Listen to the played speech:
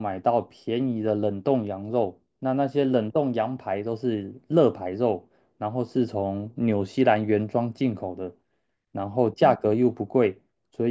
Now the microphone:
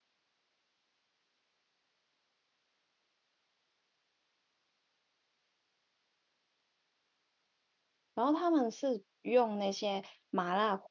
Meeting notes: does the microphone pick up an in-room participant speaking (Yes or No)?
Yes